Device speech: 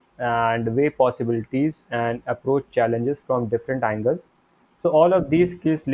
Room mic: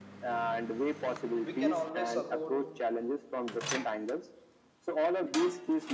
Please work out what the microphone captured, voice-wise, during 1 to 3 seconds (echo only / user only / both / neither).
both